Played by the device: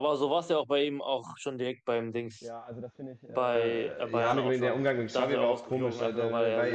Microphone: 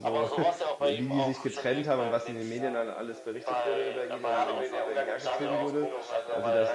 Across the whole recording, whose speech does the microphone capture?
both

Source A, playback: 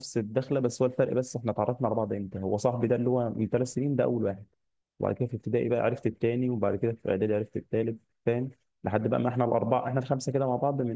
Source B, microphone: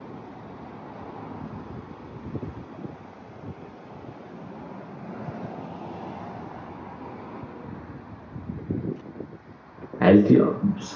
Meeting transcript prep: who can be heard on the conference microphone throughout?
user only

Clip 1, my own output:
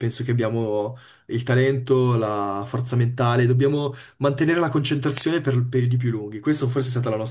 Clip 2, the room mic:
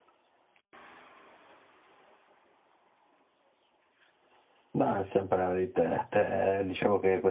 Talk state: user only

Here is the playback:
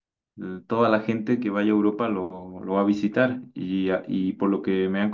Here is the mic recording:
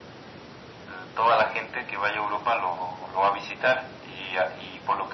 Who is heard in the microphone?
echo only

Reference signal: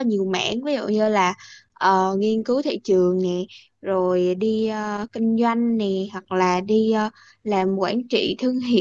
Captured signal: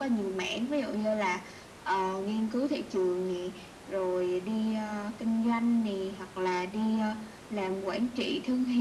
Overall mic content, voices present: echo only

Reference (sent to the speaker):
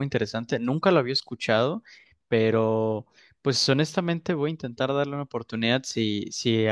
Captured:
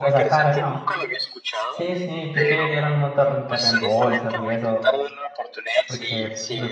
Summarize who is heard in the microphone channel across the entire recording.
both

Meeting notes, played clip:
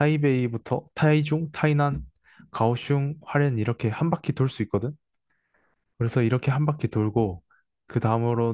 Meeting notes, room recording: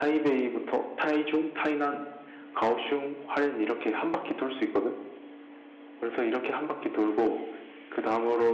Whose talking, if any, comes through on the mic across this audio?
echo only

